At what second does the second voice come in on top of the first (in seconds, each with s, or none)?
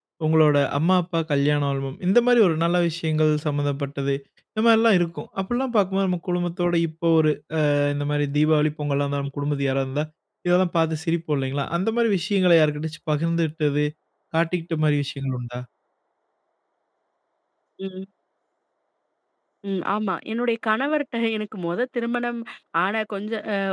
none